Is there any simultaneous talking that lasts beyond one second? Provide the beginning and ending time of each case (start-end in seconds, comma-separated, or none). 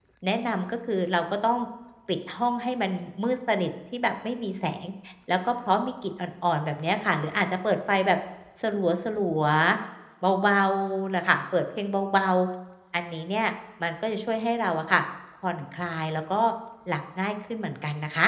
none